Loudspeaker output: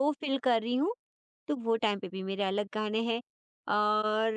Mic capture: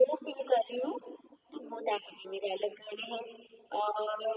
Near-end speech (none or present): none